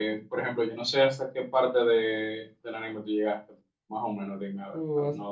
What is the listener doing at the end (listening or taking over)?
taking over